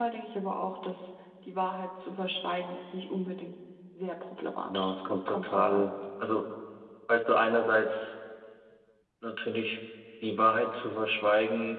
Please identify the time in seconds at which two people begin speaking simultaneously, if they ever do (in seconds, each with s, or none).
4.6 s